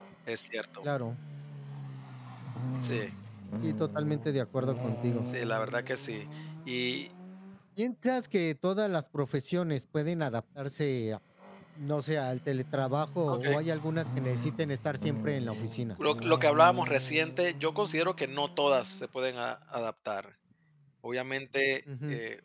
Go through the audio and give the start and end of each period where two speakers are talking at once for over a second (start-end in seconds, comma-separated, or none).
none